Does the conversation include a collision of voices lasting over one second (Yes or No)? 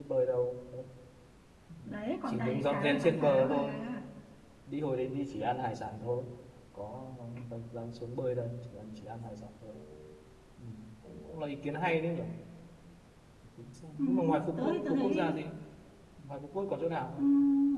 Yes